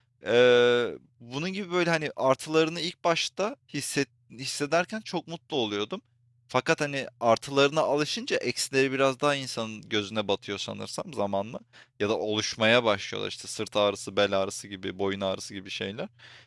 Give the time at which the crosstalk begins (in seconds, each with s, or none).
none